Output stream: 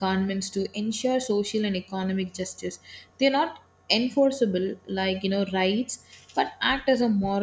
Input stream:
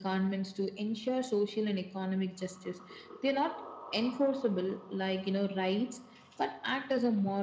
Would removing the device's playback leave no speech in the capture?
Yes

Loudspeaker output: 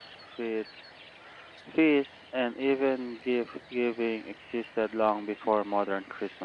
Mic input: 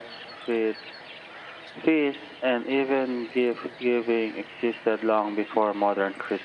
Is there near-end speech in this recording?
No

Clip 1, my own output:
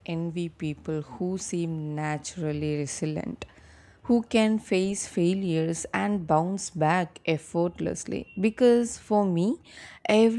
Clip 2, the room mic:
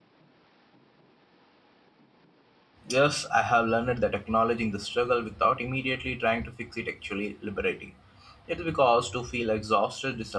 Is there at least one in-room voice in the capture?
Yes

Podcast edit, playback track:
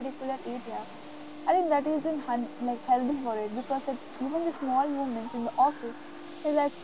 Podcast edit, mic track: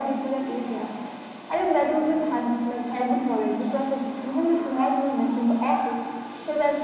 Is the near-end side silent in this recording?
Yes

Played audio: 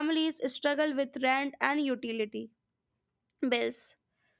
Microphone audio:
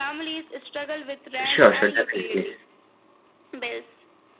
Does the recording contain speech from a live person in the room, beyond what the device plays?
Yes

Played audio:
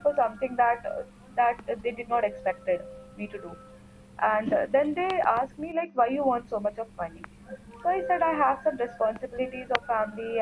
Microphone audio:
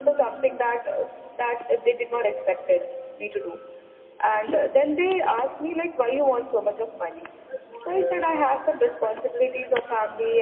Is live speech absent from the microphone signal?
Yes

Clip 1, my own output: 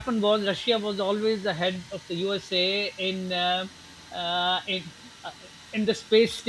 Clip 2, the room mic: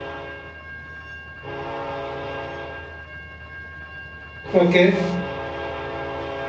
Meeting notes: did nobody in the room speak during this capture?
No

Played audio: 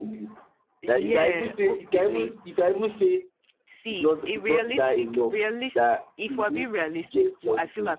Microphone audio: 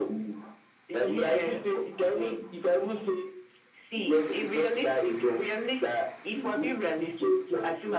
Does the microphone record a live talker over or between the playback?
No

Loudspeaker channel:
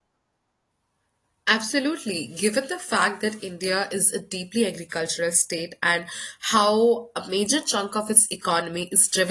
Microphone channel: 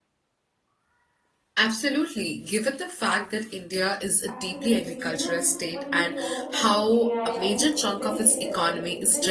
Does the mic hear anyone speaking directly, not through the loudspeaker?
Yes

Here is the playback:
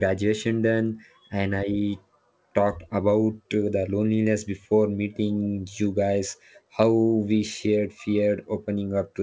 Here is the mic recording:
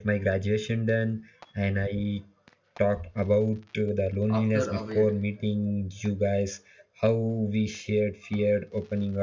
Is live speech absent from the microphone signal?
No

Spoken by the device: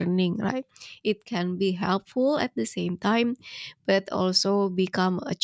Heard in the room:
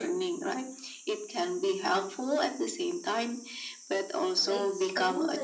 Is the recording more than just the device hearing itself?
Yes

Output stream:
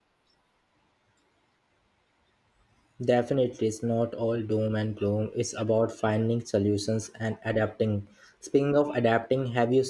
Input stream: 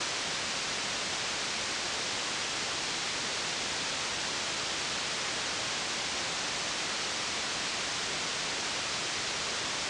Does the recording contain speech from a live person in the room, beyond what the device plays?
No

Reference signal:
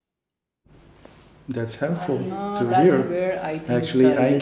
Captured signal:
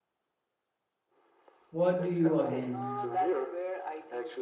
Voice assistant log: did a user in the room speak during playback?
Yes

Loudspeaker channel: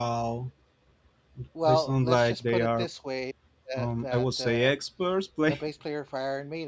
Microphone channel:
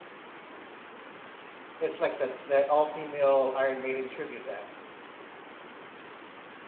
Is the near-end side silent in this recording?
No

